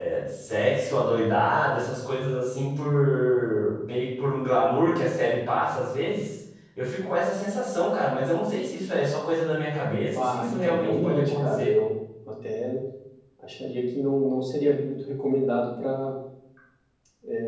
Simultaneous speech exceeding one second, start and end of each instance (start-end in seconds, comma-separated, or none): 10.2-11.8